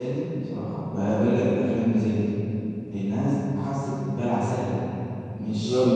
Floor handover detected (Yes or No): No